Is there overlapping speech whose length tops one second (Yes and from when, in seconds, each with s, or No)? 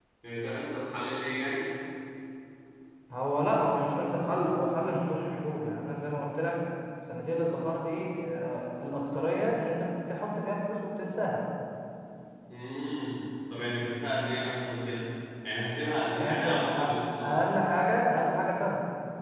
Yes, from 16.1 s